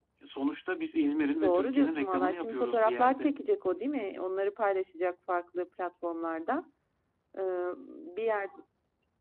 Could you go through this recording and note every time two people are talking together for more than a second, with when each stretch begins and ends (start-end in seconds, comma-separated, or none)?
1.4-3.3